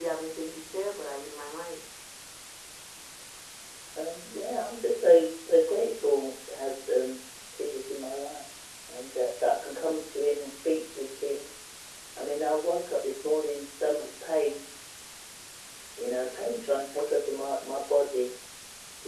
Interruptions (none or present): none